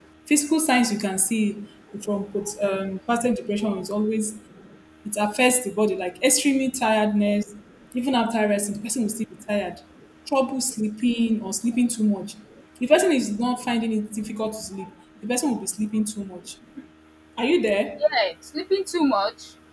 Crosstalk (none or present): none